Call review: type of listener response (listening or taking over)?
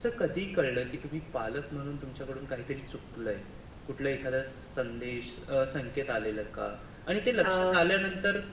listening